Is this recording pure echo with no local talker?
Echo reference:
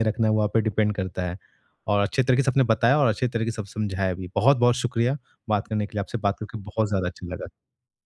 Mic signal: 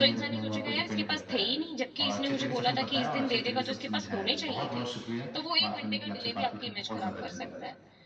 No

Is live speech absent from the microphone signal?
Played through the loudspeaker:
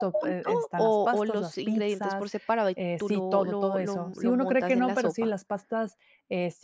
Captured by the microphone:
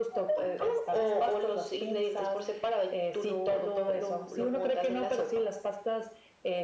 Yes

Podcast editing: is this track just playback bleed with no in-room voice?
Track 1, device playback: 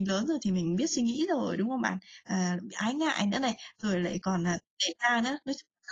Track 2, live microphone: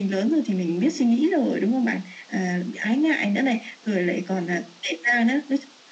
Yes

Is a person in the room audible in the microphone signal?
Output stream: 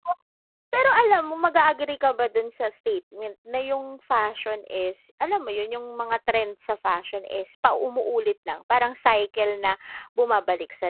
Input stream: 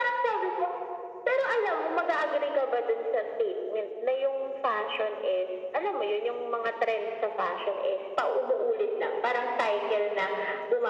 No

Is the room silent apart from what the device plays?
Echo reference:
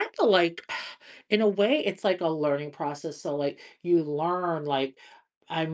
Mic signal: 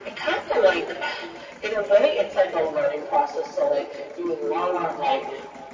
Yes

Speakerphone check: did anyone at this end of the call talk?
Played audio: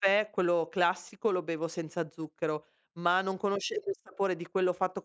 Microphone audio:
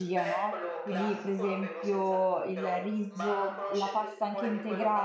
Yes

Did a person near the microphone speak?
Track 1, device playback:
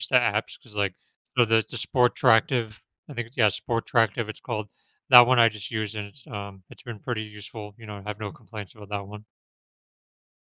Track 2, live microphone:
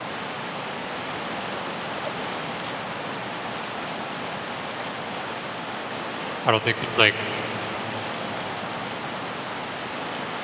Yes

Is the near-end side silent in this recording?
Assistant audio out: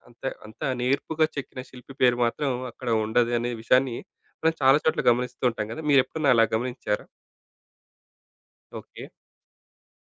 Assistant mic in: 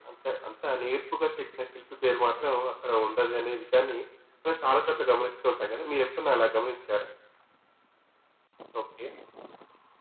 Yes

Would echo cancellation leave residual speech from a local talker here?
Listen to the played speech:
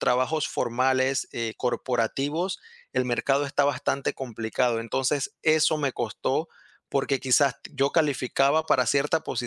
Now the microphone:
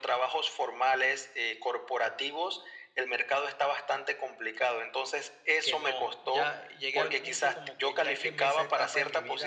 Yes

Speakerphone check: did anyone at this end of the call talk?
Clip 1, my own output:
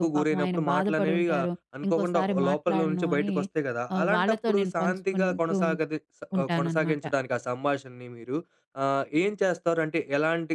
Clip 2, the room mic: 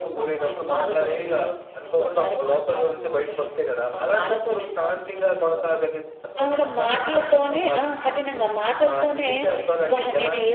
Yes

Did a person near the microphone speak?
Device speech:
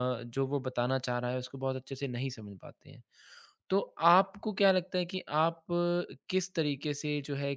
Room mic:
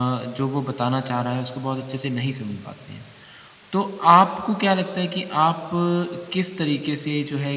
No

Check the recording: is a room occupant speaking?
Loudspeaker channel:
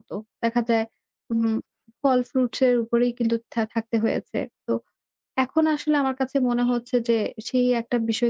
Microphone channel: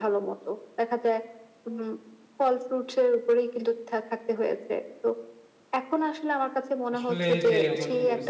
Yes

